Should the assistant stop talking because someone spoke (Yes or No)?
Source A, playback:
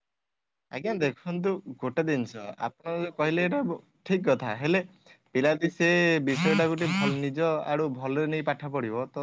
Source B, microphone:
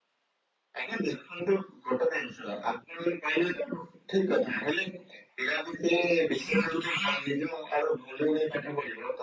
No